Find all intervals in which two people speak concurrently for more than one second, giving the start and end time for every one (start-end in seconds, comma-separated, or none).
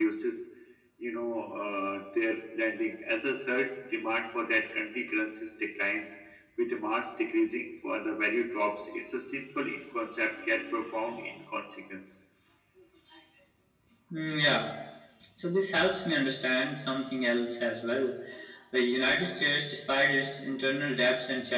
none